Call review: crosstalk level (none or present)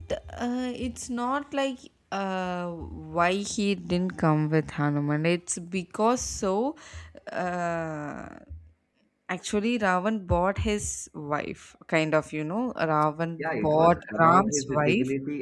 present